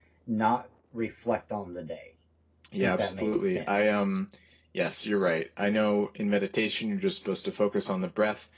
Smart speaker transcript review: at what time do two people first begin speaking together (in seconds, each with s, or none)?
2.8 s